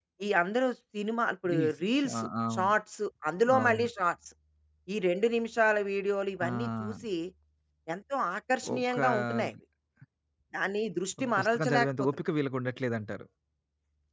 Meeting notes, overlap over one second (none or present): present